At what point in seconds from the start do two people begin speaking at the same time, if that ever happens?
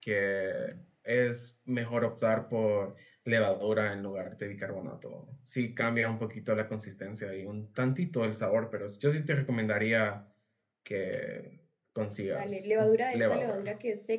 12 s

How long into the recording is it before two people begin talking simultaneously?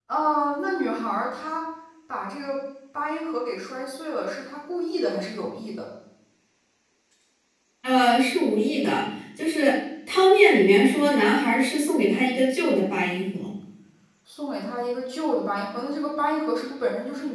none

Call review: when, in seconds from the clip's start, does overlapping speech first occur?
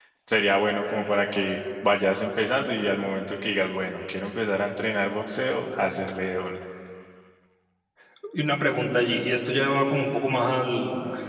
none

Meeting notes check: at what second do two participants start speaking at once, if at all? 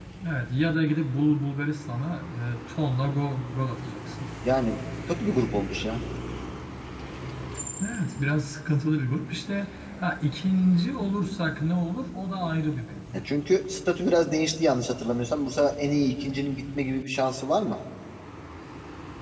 none

